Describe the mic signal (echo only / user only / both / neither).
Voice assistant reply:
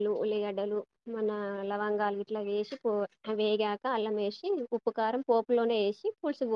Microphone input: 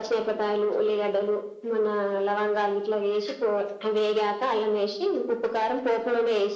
echo only